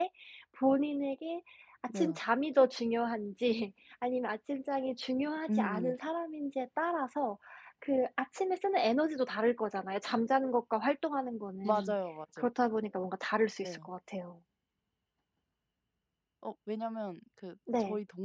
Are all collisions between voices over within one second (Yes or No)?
Yes